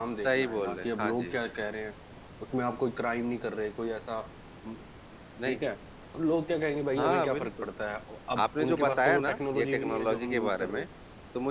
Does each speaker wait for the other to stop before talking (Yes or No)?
No